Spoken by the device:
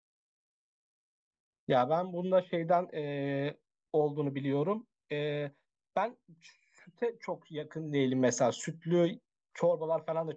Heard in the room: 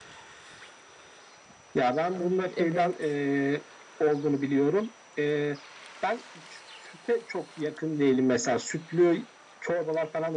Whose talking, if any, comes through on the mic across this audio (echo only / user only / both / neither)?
both